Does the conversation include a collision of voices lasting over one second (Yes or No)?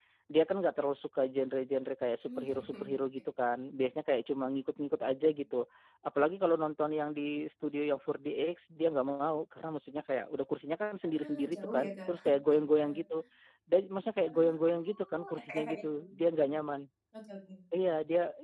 Yes